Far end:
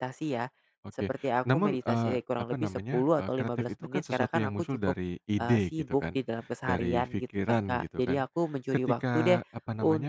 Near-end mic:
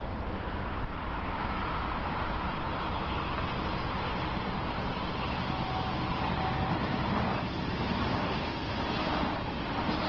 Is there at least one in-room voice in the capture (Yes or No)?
No